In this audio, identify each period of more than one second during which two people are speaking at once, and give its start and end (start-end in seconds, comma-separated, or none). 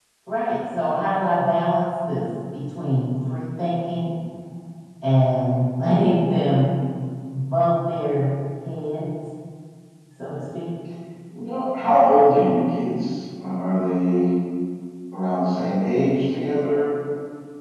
none